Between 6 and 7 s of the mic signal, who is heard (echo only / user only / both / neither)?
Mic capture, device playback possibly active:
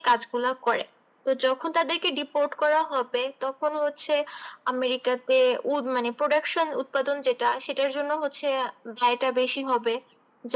echo only